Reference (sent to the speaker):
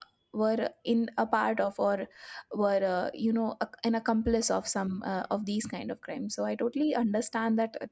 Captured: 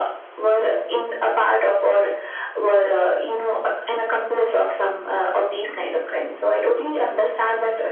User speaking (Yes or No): No